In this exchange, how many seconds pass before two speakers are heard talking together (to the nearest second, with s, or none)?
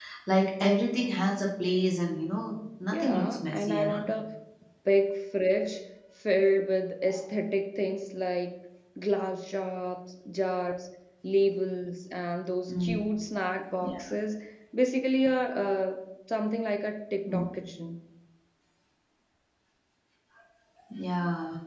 3 s